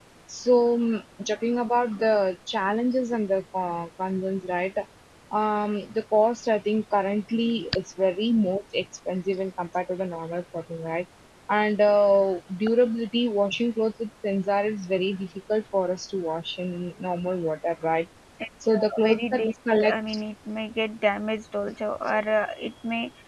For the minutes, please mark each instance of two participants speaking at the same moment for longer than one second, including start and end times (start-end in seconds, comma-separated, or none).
18.7-19.9